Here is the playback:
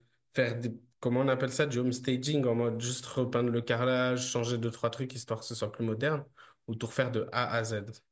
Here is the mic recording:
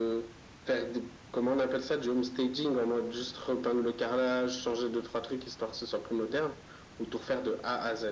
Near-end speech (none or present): none